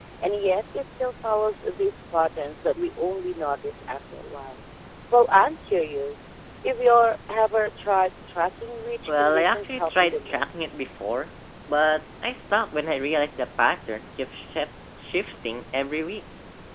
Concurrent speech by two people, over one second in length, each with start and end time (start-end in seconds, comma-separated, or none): 9.1-10.6